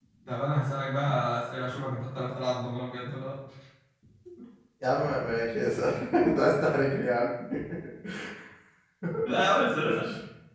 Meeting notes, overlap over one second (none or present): none